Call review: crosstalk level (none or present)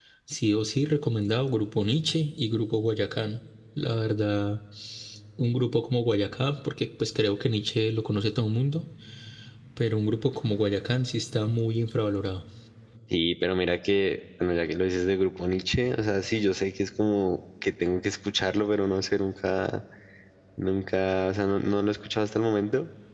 none